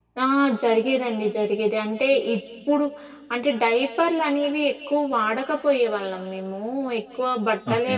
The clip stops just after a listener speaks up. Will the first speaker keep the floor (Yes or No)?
Yes